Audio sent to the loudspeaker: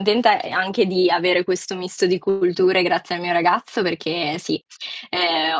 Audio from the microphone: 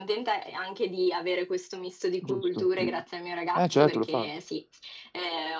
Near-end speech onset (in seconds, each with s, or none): 2.2 s